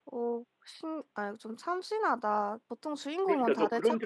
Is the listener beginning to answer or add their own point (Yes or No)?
Yes